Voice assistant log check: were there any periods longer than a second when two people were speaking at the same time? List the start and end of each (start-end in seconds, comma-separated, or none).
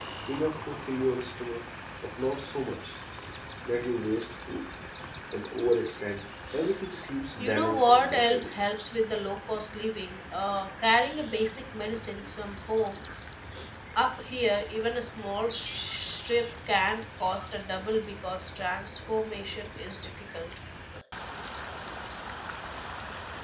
7.4-8.6